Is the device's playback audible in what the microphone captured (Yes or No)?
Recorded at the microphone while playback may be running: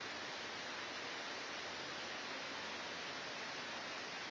No